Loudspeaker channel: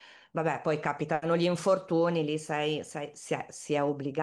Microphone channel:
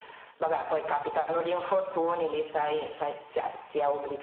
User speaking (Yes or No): No